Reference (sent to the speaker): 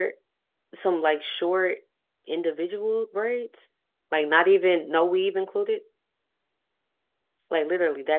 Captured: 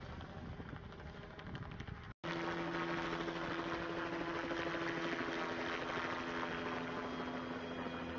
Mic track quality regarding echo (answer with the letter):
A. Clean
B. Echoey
A